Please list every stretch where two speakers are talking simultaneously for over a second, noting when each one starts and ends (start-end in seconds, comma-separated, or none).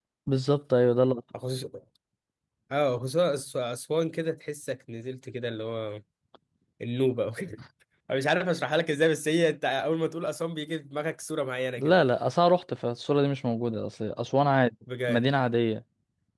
none